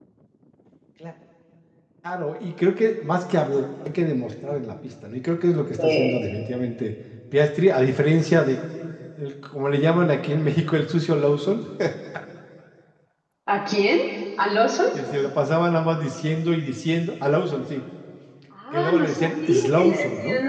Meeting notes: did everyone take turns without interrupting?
No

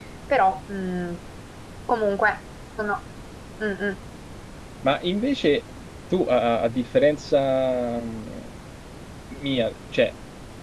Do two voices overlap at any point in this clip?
No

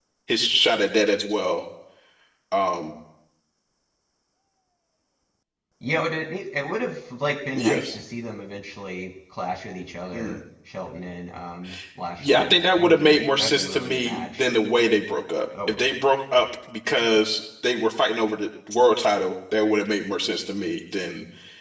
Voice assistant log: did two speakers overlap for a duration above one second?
Yes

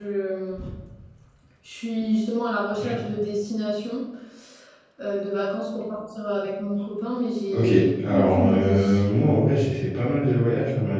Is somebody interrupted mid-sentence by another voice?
Yes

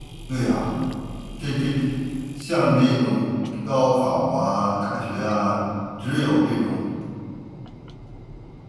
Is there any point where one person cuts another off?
No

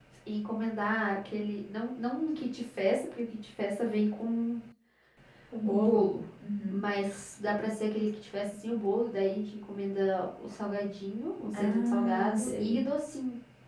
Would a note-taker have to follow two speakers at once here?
Yes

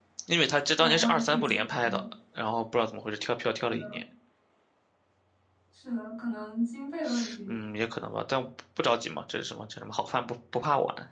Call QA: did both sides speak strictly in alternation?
No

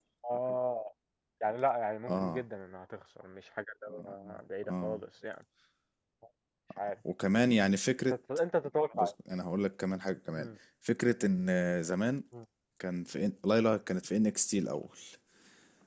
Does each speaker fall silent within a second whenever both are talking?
Yes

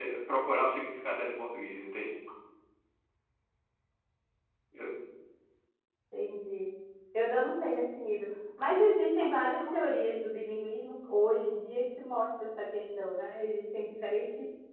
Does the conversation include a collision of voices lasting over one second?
No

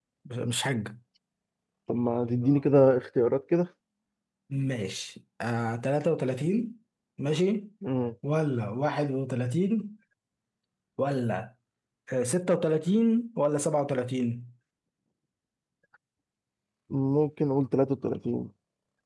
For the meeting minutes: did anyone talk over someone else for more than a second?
No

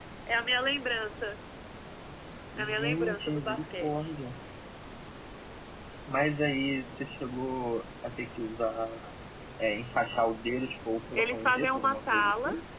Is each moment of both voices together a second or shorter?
No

